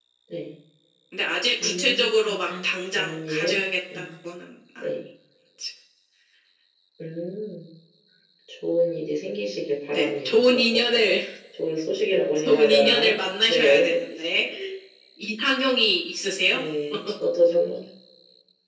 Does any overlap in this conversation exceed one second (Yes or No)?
Yes